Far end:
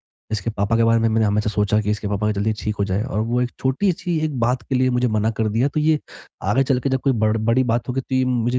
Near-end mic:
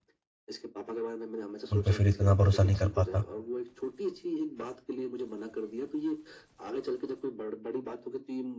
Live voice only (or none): उन पे फिर इतना भरोसा नहीं कर पाता।